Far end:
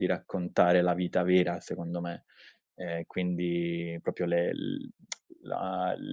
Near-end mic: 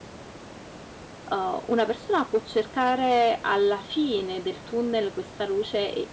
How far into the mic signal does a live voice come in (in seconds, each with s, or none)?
1.3 s